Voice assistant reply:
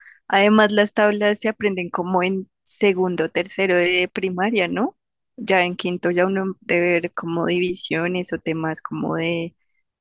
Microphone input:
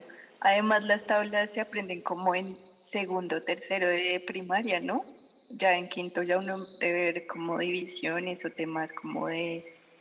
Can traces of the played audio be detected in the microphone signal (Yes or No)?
Yes